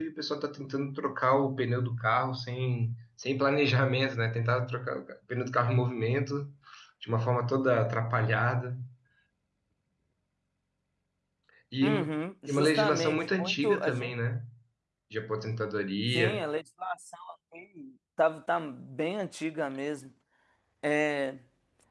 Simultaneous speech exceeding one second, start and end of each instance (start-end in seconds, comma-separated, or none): 12.5-14.1